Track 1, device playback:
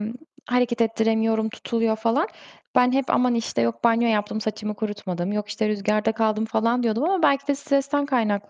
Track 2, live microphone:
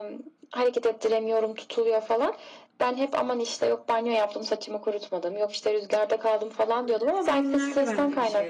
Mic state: both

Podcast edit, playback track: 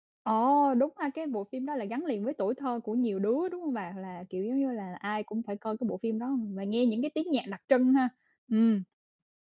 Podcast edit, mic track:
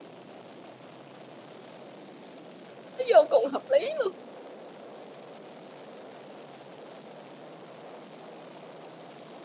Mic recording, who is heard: user only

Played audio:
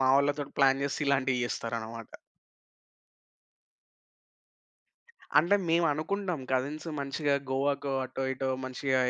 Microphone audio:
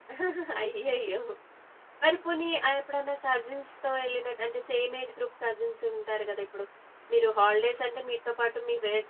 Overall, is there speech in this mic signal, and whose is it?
user only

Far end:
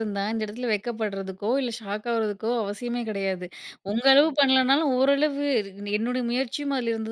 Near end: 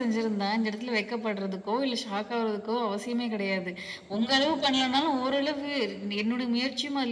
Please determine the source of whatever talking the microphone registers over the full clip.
echo only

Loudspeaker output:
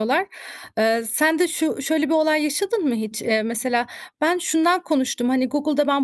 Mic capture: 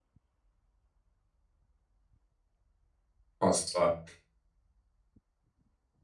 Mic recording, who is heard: user only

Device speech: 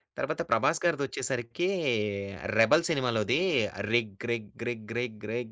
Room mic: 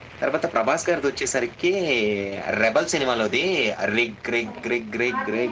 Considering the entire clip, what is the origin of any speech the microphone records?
both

